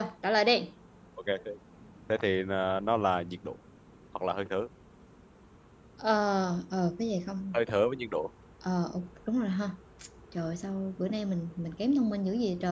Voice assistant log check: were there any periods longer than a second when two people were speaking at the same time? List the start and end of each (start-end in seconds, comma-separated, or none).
none